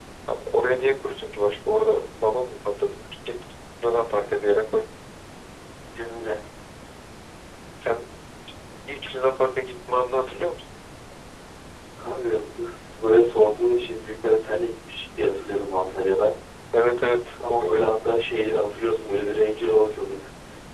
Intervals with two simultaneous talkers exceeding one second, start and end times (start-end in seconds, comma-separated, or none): none